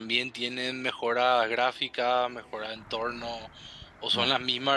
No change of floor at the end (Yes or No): Yes